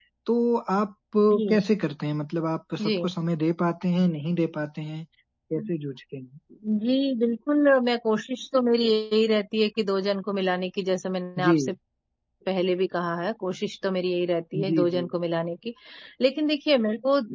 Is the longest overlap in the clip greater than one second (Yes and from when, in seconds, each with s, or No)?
No